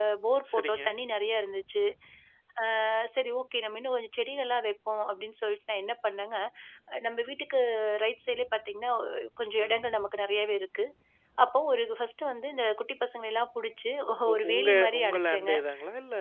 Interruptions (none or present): present